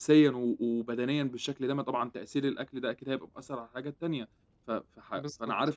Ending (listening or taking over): listening